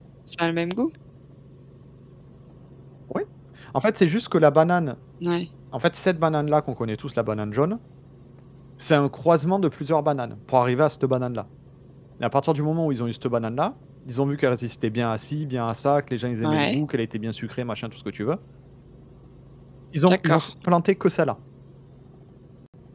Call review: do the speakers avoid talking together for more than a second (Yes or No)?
Yes